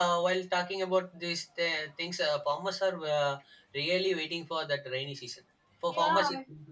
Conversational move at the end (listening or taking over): listening